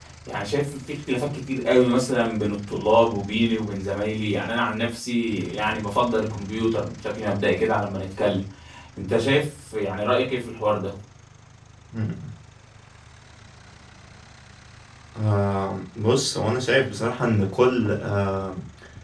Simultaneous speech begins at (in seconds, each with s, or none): none